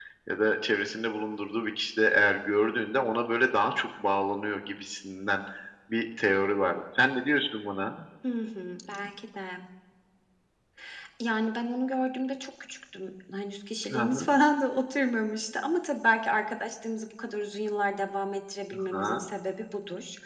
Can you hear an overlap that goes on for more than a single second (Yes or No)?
No